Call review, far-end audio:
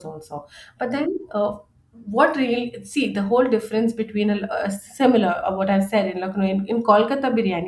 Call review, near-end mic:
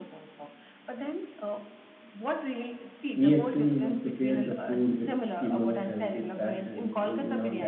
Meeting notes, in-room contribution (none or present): present